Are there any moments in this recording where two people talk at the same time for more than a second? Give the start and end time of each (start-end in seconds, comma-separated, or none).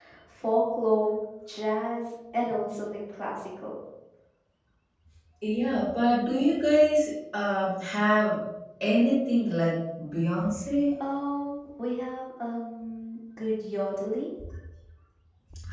none